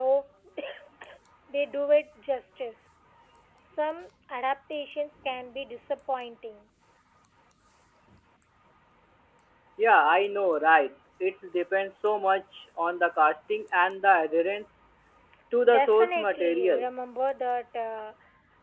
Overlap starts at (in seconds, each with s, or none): 15.7 s